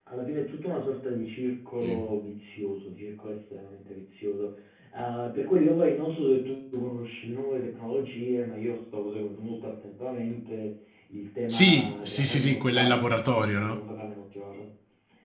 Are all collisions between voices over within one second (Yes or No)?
No